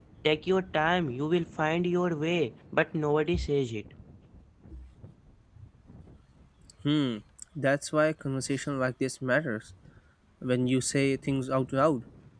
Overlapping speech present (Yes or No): No